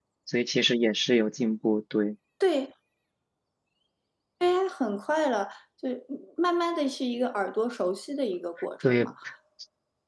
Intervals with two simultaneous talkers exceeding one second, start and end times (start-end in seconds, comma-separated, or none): none